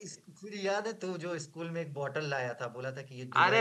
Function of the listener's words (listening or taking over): taking over